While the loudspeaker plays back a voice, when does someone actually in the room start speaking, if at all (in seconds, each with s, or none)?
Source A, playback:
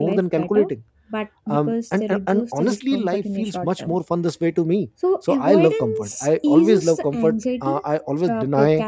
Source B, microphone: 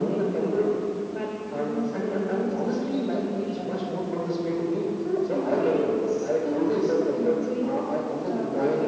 none